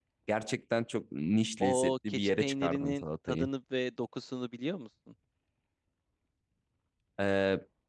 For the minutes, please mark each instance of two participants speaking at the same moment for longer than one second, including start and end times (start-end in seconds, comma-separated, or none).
1.6-3.5